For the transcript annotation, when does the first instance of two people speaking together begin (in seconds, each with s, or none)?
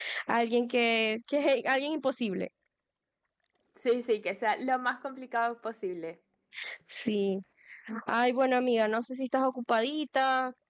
none